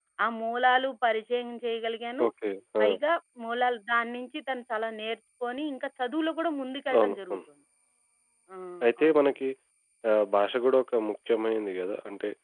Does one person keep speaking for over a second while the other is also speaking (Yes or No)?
No